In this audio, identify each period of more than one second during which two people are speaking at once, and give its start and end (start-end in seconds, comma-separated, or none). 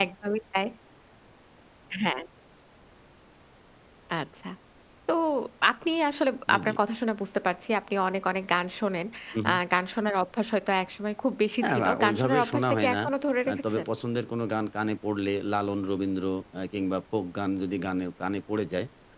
11.6-13.0